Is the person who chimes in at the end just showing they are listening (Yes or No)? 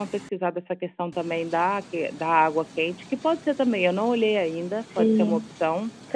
No